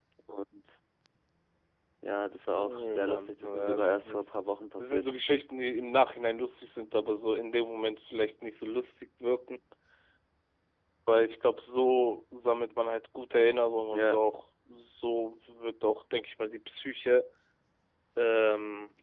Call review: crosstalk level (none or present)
present